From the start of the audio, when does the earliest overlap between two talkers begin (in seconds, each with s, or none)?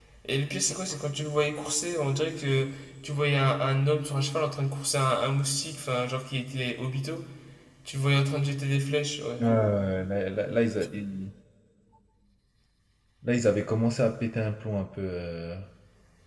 none